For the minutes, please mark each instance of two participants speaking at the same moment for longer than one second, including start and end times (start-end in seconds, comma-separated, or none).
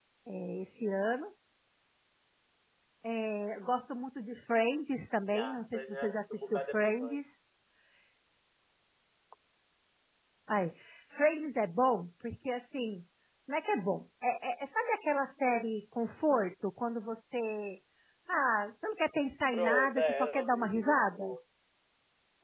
5.2-7.2, 19.5-21.2